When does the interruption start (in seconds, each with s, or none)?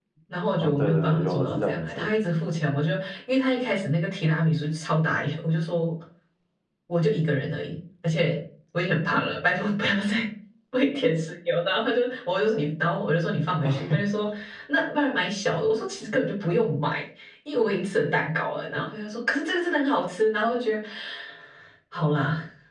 0.6 s